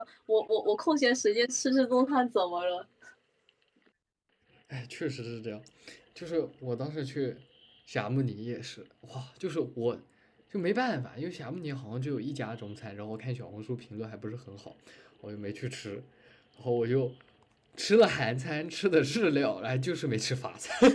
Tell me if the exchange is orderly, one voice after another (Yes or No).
Yes